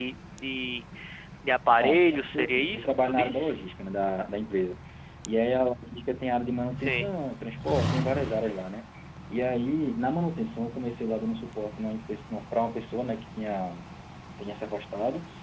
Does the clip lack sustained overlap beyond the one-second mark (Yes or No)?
No